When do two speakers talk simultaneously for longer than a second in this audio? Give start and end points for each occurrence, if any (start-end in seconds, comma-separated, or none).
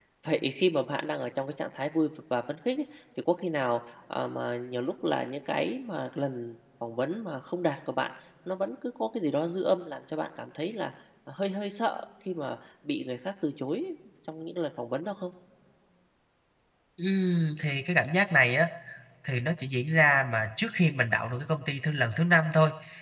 none